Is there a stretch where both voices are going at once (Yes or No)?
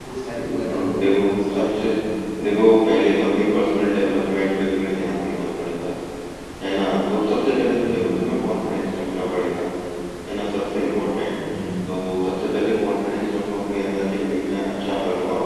Yes